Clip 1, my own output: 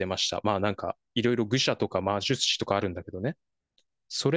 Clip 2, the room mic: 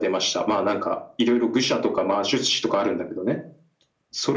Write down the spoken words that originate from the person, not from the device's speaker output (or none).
none